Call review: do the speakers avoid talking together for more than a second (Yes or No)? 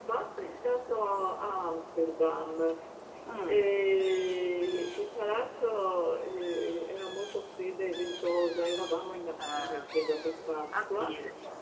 Yes